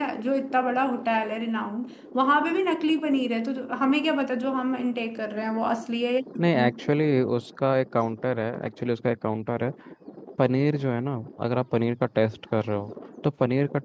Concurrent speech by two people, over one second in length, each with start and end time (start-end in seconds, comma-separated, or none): none